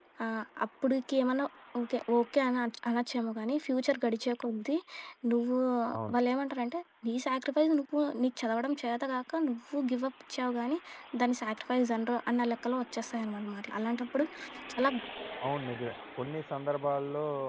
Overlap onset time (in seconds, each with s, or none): none